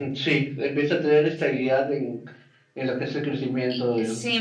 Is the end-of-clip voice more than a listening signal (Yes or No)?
Yes